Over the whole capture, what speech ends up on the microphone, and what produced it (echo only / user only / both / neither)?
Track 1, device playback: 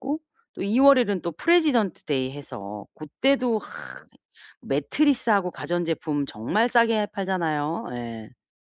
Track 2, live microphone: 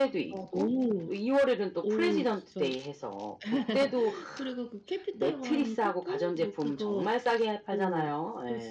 both